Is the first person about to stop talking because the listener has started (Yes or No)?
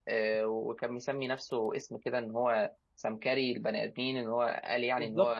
Yes